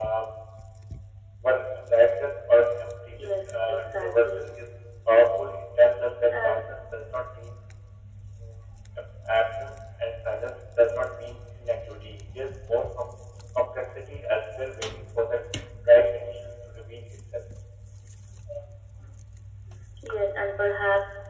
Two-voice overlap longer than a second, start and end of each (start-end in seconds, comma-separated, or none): 3.2-4.5